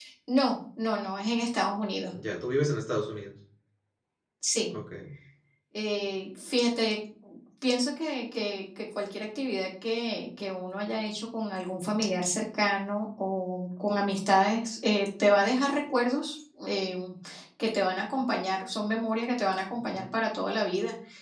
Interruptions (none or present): none